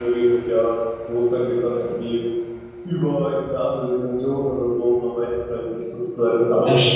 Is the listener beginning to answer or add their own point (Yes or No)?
Yes